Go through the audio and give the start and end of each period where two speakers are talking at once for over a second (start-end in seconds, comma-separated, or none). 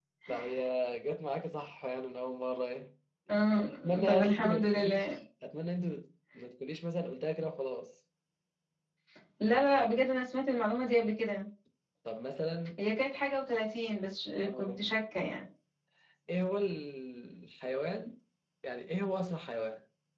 3.6-5.2